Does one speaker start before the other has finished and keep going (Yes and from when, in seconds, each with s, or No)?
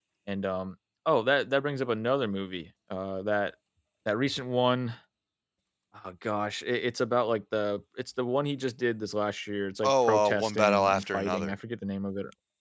Yes, from 9.8 s